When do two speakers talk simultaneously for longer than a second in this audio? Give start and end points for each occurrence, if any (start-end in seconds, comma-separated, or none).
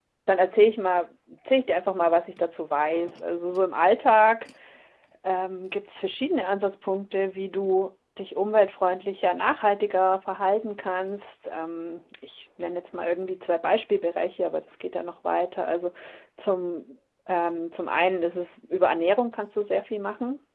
none